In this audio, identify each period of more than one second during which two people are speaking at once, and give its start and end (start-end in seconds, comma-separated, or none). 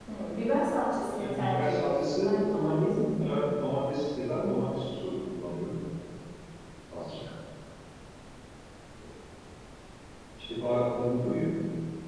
1.1-3.5